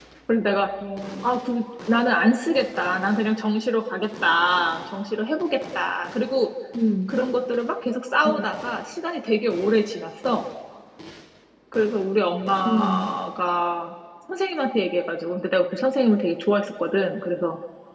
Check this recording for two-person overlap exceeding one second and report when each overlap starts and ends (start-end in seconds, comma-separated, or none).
none